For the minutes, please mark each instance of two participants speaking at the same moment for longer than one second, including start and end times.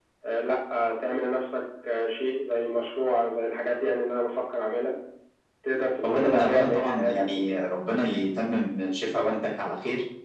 6.1-7.6

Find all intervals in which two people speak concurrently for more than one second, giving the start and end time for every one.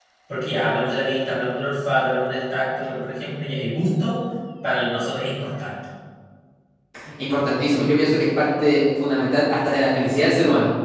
none

